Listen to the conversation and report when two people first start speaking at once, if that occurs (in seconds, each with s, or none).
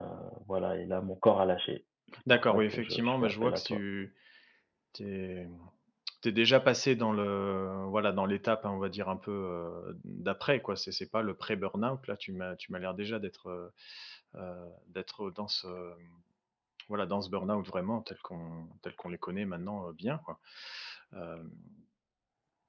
2.3 s